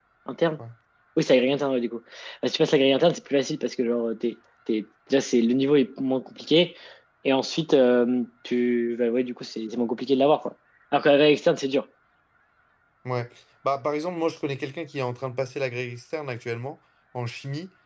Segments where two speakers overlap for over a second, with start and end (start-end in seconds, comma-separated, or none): none